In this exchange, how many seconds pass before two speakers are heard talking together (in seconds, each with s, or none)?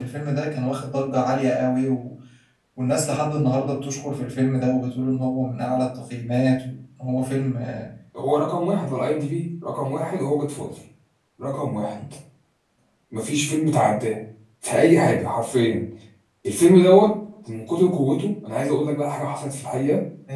none